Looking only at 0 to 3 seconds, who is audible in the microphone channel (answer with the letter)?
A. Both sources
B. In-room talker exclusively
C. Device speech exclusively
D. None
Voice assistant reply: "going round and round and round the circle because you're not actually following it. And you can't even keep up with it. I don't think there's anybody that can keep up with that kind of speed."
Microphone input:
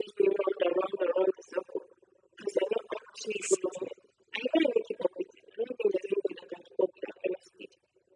C